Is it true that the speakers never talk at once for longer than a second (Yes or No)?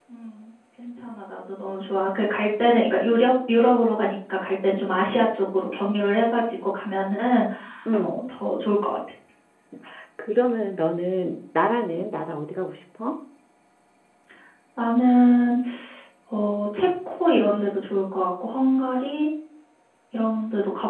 Yes